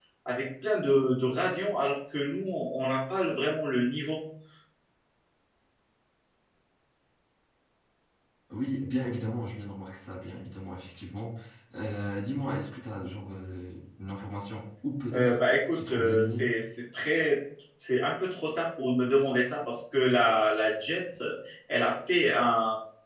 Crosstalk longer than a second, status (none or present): present